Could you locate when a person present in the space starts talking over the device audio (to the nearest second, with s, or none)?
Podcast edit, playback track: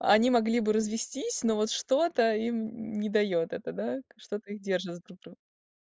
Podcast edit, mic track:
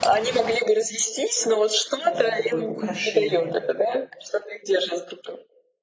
2 s